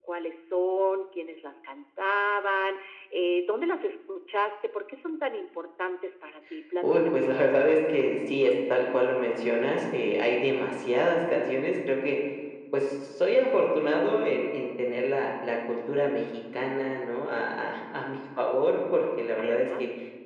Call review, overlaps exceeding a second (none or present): none